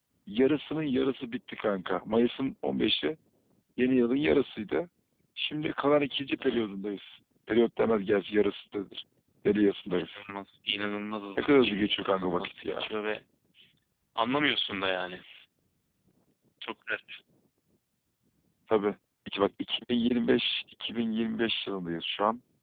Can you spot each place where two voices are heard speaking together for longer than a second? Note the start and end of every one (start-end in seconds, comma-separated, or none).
11.4-12.9